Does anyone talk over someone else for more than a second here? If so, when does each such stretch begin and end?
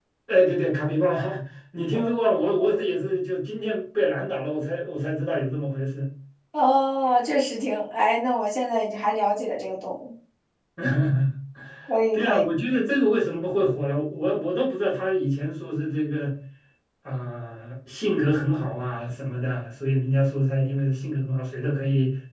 none

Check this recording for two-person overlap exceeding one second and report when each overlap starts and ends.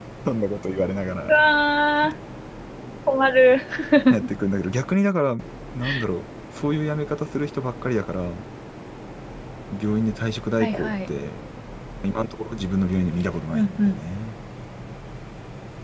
none

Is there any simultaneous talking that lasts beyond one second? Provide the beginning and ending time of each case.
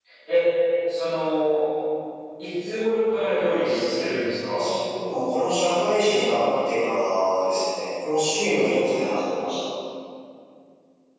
none

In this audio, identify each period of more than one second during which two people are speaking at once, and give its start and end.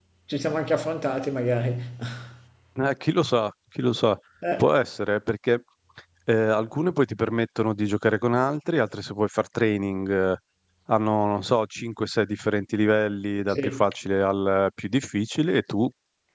none

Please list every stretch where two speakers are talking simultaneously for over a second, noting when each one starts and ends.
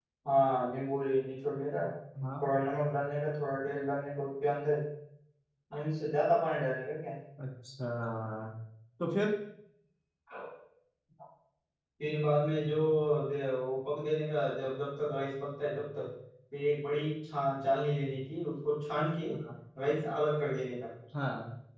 none

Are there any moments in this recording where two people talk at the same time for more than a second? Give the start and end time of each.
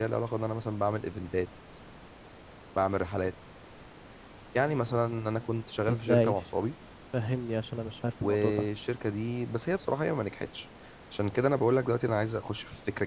none

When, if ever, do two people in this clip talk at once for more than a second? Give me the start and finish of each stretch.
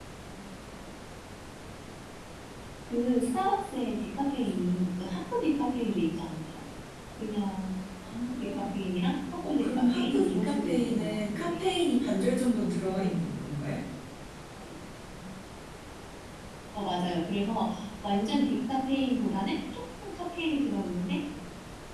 9.5-11.6

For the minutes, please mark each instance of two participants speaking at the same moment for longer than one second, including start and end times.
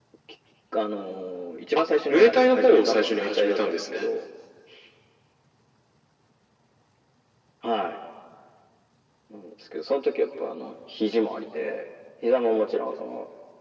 1.8-4.1

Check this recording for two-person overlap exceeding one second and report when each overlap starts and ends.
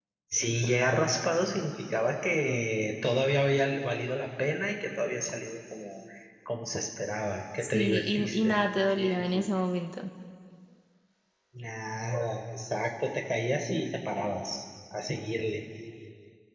7.6-9.5

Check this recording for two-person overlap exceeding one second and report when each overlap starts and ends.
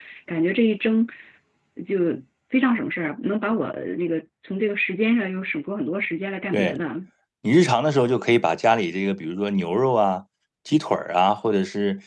none

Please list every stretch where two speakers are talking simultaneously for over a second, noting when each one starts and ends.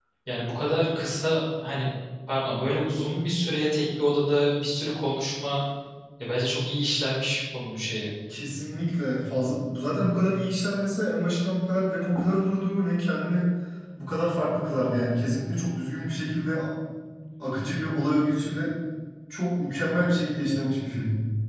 none

